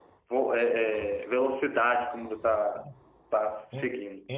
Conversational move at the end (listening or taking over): taking over